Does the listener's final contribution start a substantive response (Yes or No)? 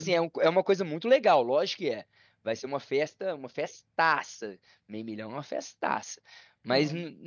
No